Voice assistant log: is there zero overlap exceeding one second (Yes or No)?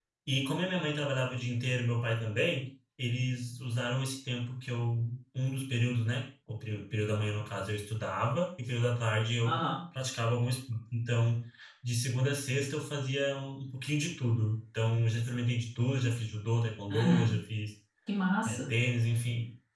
Yes